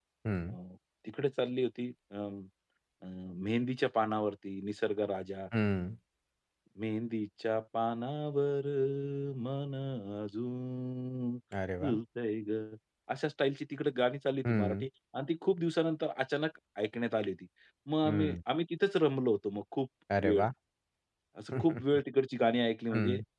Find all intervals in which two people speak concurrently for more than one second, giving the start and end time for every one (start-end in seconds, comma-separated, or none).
none